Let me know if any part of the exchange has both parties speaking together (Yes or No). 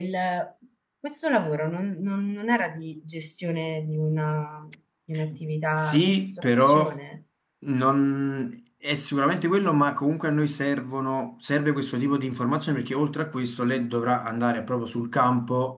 Yes